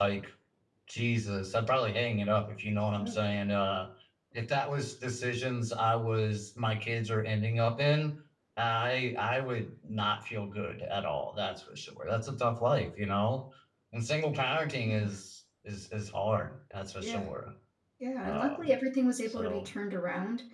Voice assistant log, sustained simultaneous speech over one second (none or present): none